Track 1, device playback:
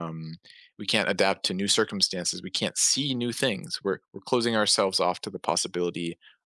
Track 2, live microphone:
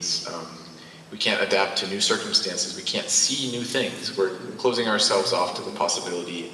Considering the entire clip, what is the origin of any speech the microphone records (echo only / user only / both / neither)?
both